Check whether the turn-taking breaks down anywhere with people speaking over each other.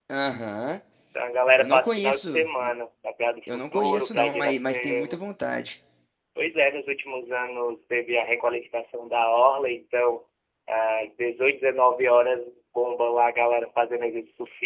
Yes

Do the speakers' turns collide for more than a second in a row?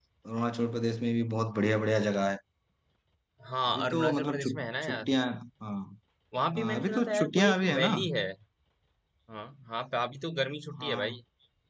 Yes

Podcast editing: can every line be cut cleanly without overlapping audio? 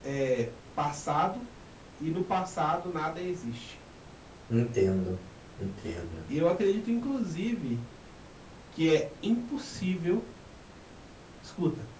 Yes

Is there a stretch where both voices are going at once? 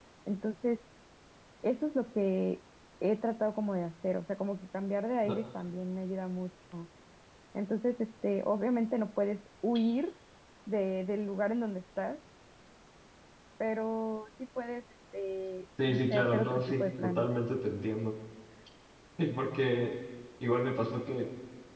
Yes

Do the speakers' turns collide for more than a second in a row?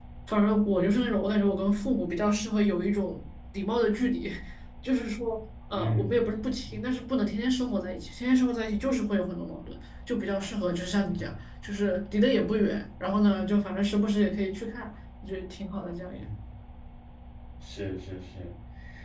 No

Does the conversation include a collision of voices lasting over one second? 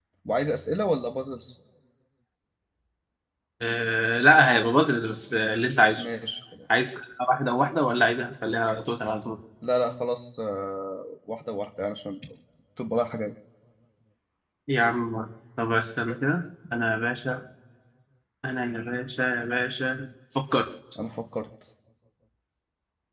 No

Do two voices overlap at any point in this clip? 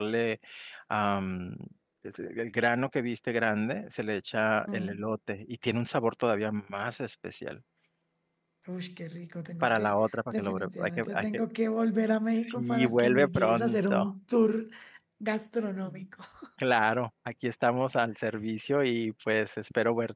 Yes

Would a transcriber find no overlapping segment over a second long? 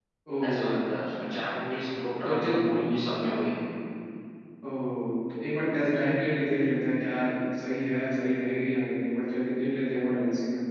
Yes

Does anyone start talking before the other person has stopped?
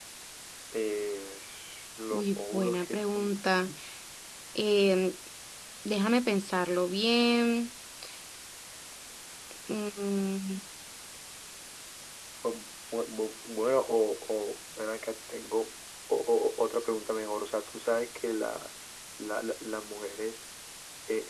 Yes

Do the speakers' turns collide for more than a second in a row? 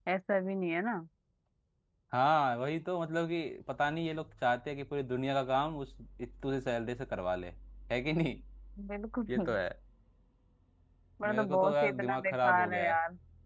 Yes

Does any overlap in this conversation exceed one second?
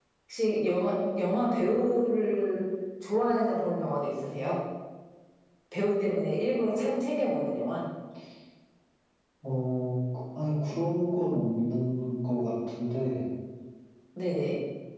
No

